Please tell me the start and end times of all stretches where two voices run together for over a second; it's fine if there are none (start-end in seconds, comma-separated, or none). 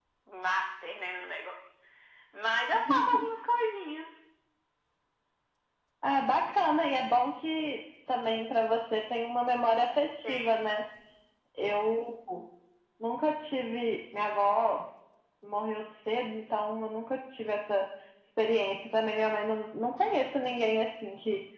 none